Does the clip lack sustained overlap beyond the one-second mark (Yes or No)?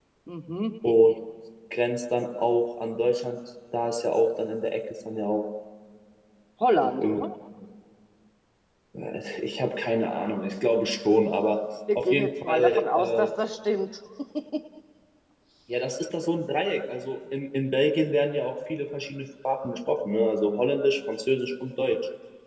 No